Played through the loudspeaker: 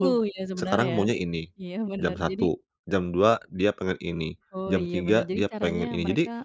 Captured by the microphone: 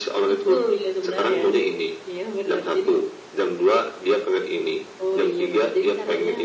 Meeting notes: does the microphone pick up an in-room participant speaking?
No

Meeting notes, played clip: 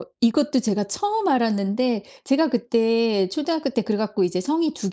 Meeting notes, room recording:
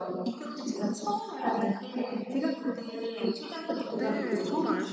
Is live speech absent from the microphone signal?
No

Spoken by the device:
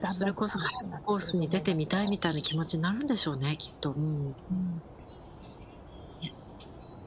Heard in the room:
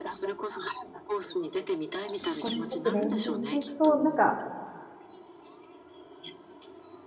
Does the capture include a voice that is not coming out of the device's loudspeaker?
Yes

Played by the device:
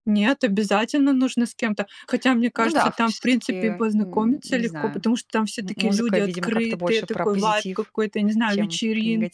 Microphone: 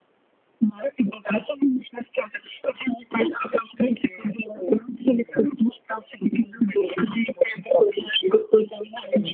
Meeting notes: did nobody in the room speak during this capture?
Yes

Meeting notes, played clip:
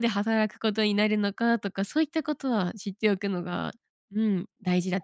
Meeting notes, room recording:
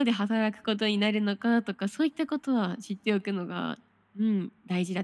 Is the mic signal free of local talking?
Yes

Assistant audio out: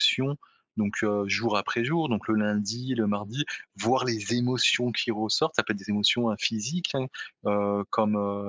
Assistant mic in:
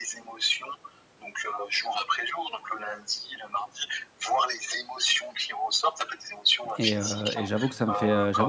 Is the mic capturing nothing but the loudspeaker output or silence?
No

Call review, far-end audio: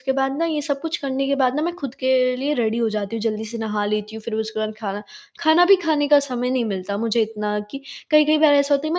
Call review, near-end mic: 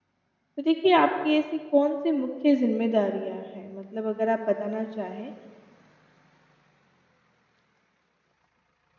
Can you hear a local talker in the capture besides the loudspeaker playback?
Yes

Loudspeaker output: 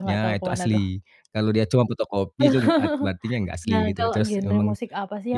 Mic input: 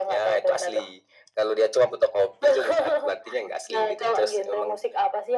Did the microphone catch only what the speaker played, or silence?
Yes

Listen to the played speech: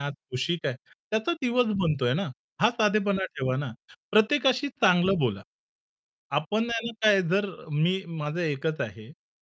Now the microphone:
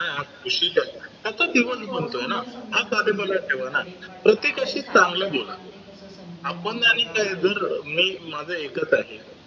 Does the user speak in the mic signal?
Yes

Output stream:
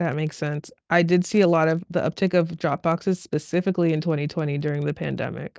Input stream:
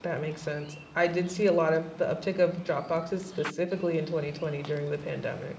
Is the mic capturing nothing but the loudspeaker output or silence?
Yes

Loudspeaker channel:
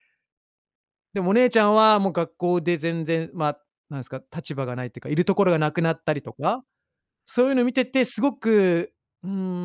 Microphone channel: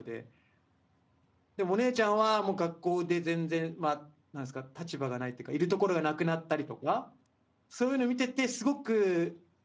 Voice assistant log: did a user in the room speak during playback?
No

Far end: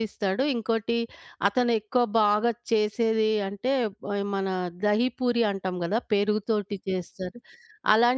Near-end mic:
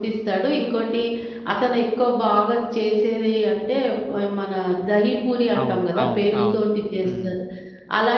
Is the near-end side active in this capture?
Yes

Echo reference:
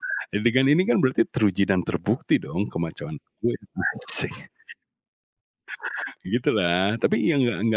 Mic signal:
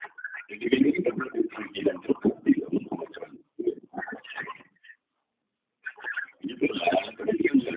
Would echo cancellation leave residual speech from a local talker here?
No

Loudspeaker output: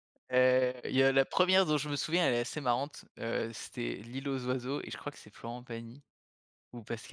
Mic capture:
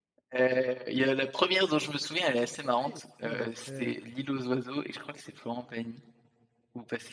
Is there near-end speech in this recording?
Yes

